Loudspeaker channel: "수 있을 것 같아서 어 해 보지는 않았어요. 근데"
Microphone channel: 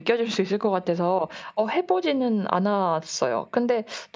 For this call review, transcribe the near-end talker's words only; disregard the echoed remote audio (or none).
none